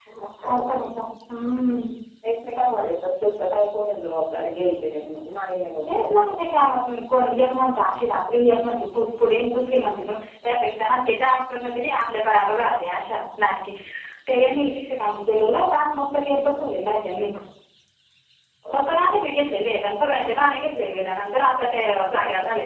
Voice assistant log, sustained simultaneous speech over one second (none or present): none